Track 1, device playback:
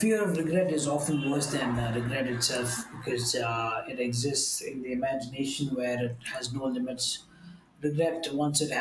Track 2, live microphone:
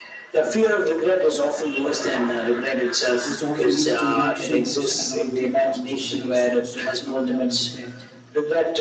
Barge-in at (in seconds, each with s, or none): 3.2 s